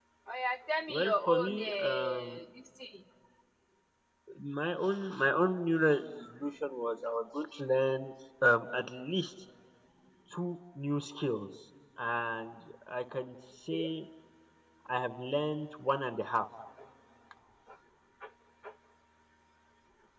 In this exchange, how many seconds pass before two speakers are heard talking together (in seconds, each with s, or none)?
0.9 s